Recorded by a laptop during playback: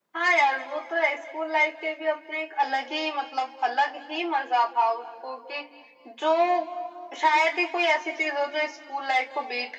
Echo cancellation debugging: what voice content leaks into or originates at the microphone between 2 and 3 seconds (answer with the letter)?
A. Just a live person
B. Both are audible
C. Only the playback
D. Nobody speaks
C